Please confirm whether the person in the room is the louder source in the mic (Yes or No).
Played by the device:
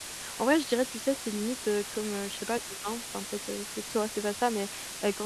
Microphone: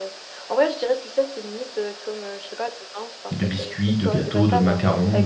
Yes